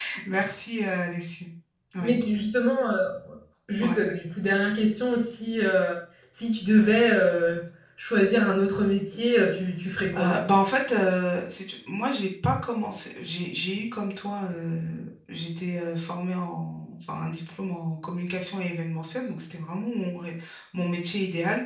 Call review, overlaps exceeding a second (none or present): none